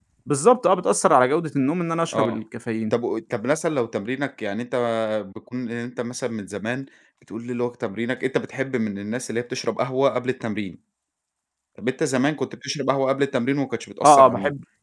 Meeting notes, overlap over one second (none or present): none